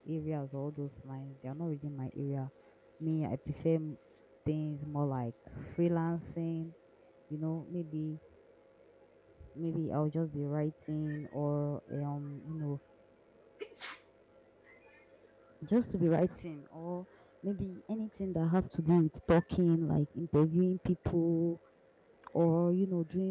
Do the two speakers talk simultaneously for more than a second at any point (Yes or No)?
No